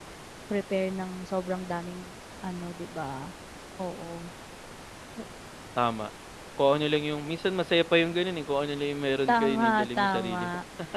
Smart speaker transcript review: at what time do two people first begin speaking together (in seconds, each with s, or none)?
9.3 s